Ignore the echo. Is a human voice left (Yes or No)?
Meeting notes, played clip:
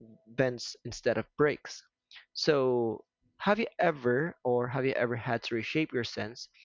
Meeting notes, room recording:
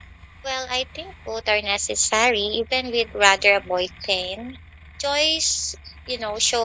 Yes